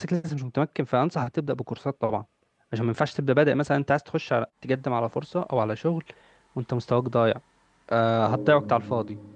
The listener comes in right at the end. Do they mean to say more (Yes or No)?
No